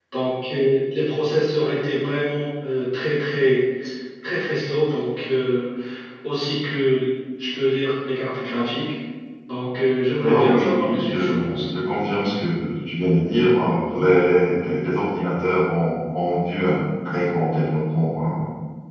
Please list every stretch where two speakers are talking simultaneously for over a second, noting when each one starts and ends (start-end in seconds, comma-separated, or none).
10.2-11.6